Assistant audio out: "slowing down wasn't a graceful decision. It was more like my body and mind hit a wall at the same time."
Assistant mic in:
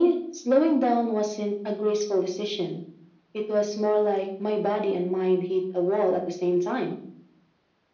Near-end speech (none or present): none